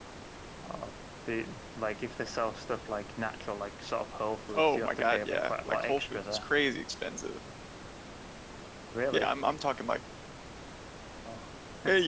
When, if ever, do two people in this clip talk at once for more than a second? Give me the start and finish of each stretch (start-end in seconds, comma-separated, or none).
4.5-6.4